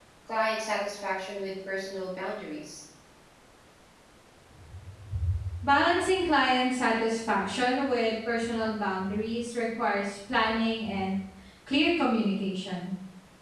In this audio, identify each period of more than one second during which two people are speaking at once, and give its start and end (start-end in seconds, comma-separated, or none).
none